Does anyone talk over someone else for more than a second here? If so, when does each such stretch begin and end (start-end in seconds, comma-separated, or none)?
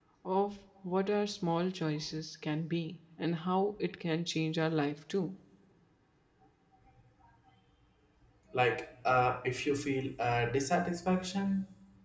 none